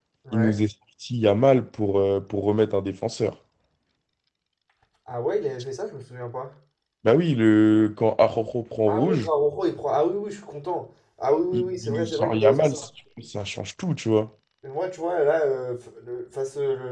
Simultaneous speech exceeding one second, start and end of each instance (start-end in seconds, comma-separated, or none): 11.5-12.8